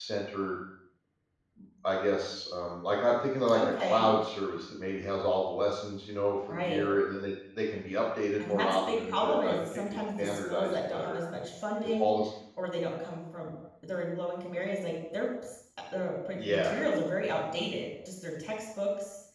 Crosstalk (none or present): present